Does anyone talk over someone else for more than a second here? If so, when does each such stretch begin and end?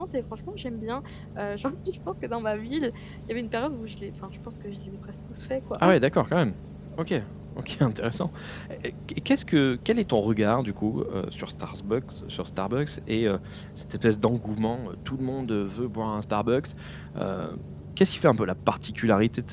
none

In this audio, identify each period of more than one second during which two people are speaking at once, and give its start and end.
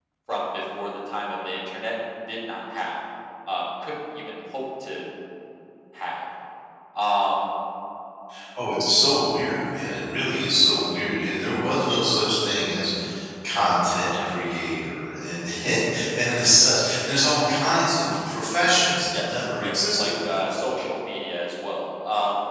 19.1-20.5

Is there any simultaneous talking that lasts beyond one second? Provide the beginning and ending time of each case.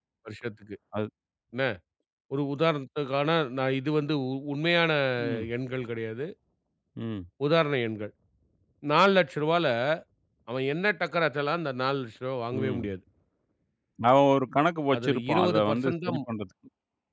14.9-16.2

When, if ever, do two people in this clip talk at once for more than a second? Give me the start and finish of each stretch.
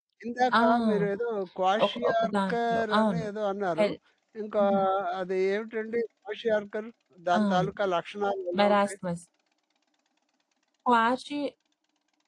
1.9-3.3

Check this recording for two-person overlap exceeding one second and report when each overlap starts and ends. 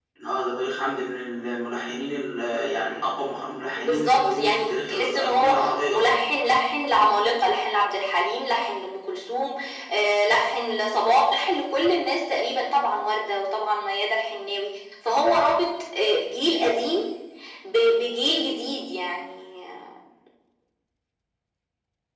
3.8-5.5

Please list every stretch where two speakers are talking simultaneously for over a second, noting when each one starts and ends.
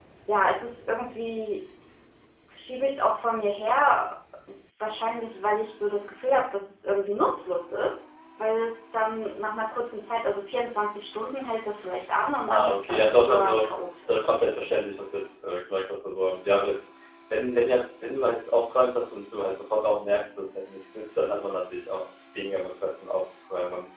12.5-13.7

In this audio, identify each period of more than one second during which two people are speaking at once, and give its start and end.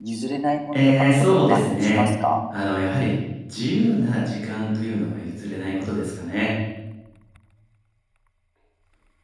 0.7-2.1

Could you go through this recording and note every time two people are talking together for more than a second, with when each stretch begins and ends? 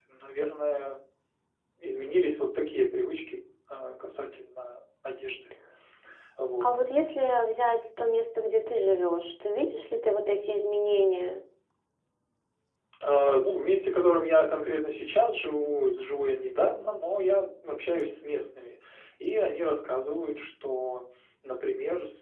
none

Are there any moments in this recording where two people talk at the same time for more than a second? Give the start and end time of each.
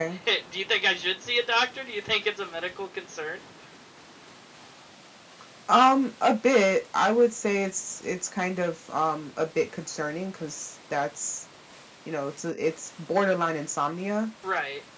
none

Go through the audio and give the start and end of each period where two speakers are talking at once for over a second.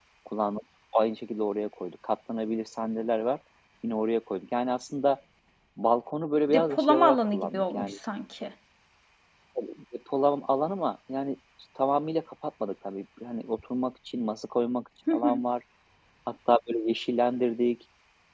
6.5-8.0

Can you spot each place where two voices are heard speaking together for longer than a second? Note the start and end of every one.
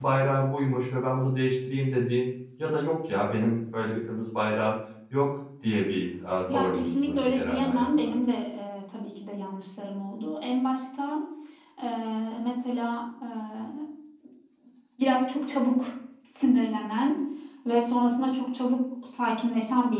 6.5-8.1

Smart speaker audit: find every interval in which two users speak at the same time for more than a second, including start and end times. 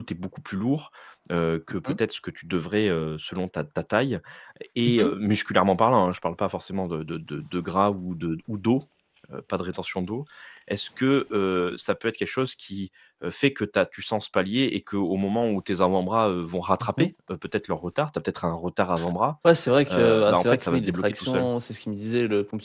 19.9-21.5

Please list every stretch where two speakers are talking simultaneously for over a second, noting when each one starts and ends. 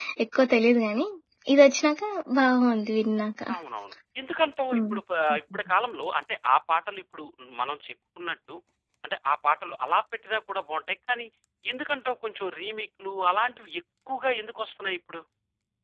none

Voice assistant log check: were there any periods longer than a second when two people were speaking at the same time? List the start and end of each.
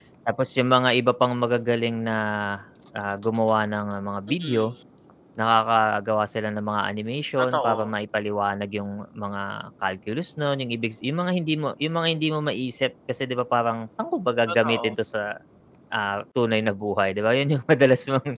none

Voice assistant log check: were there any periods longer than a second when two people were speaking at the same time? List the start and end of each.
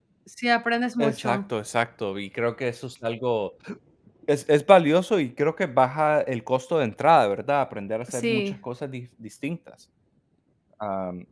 none

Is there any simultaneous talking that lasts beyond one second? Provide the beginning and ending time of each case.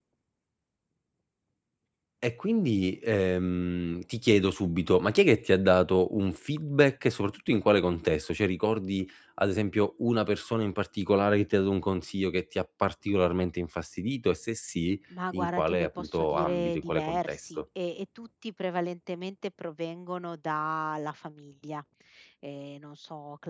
15.3-17.6

